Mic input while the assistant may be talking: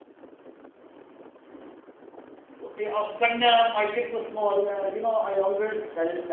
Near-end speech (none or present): present